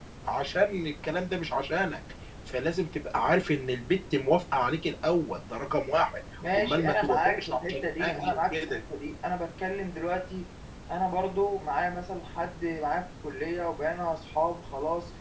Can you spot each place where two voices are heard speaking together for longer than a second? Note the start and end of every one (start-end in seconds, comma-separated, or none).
6.5-8.8